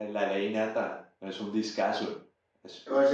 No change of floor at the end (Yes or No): No